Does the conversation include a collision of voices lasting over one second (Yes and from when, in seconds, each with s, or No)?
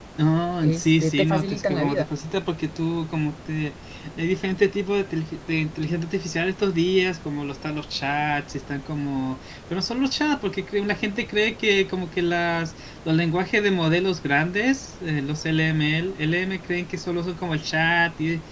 Yes, from 0.6 s